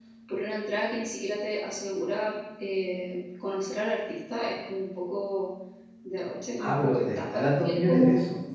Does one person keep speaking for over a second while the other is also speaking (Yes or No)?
Yes